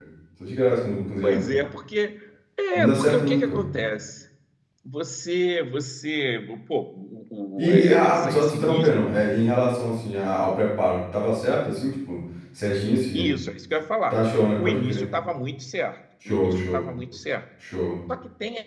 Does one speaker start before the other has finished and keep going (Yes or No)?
Yes